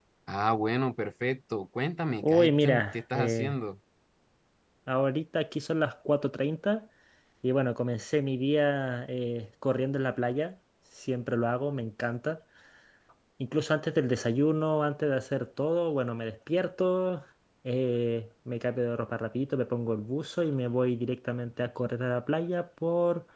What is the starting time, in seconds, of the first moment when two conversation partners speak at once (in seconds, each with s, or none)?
2.2 s